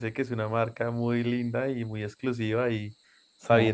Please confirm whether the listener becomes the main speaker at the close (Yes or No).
No